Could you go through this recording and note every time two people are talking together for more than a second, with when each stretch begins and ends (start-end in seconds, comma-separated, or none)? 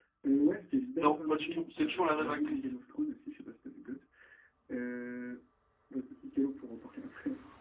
1.0-2.7